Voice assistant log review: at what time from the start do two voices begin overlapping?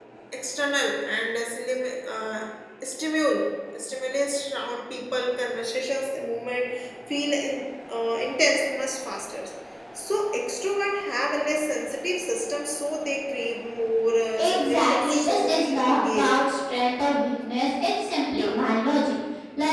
14 s

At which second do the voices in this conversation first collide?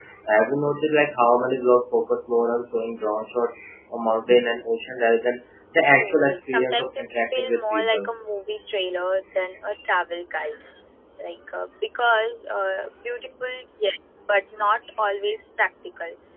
6 s

